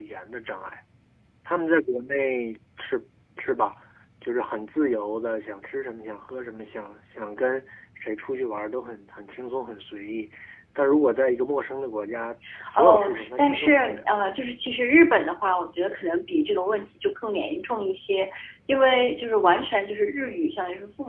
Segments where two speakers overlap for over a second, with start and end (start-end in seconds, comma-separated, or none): 12.8-14.0